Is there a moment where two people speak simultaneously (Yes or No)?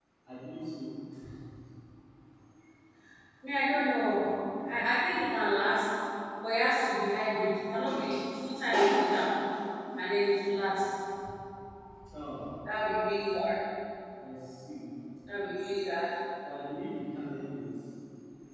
No